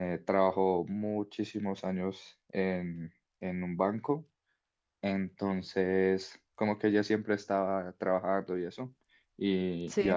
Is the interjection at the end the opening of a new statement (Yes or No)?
No